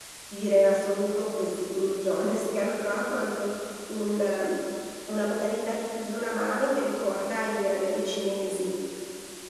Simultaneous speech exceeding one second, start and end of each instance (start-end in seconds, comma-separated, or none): none